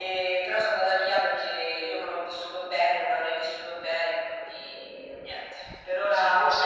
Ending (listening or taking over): taking over